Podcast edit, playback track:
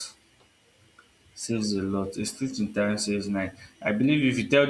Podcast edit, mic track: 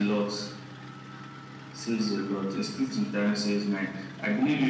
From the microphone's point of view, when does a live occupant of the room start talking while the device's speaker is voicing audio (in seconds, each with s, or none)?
none